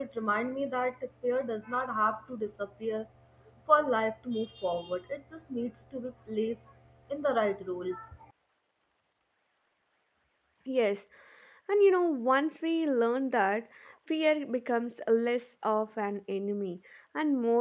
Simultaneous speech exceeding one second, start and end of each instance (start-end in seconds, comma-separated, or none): none